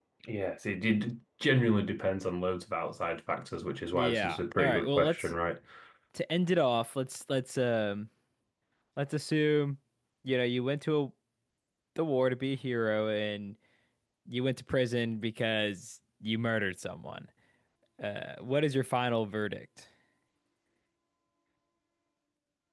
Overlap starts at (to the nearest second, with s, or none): 4 s